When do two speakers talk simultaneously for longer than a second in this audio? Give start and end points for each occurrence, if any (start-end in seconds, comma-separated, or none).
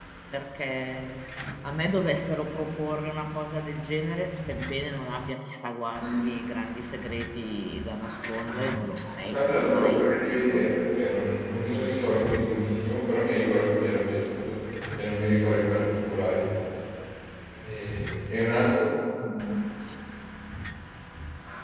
9.3-10.7